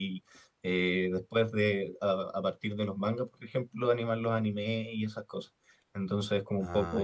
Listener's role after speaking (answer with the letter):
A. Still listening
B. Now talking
A